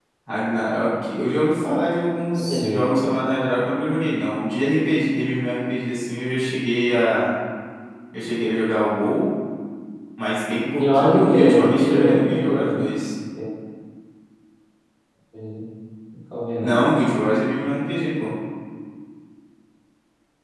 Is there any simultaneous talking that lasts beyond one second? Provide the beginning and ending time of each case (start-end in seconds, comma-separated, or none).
10.7-12.8